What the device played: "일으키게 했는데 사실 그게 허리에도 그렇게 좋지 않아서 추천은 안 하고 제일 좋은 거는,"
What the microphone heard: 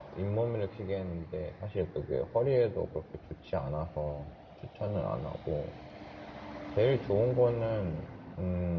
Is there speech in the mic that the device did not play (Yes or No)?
No